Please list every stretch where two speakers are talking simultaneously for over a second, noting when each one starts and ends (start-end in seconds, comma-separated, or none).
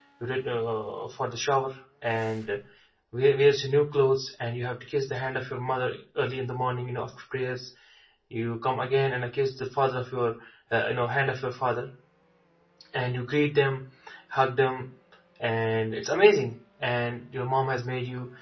none